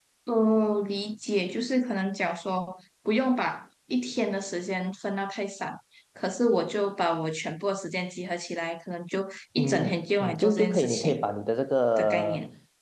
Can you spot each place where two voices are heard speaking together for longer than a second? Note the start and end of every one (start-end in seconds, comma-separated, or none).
9.6-11.2